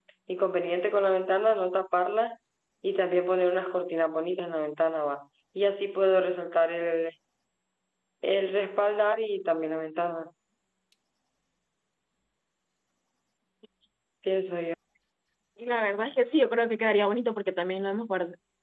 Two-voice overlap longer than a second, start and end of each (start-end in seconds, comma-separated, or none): none